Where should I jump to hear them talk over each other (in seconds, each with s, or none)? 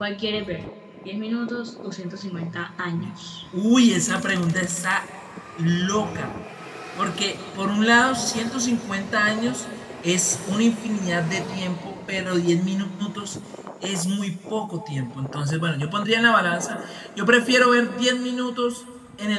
none